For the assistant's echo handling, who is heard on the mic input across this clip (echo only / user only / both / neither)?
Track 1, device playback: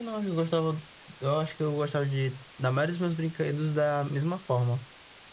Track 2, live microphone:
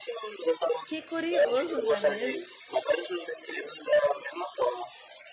both